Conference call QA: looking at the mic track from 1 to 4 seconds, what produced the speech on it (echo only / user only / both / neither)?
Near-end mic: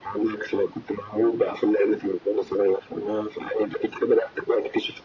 echo only